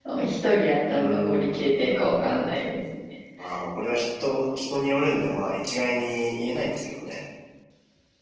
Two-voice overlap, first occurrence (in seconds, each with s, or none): 0.9 s